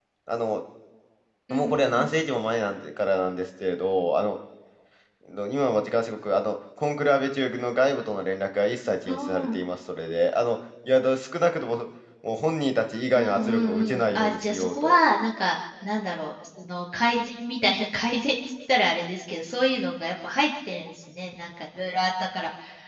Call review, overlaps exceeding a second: present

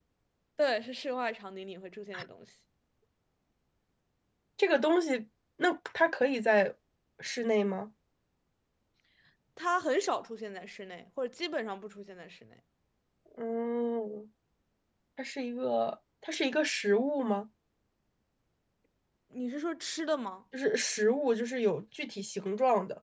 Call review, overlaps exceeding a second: none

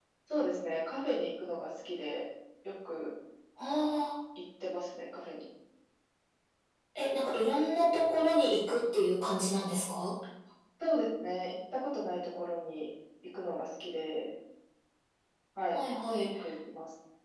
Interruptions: none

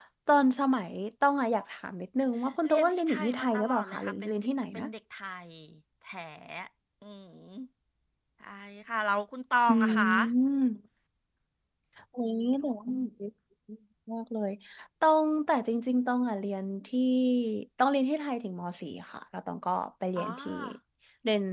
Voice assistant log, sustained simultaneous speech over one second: present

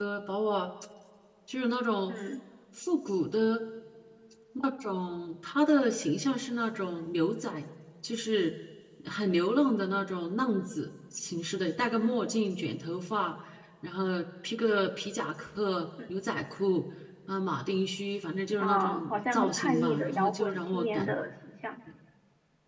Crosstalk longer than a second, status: present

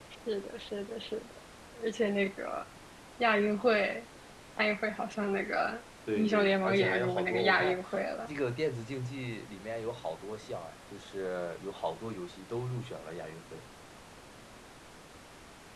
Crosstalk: present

